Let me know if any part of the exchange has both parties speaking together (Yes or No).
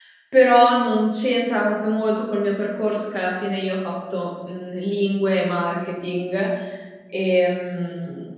No